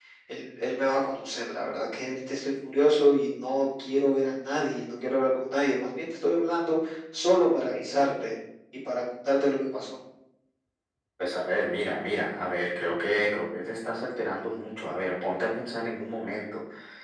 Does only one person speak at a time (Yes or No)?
Yes